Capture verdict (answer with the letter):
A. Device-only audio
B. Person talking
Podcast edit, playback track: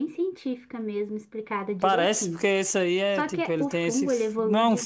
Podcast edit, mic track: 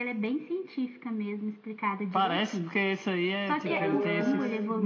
B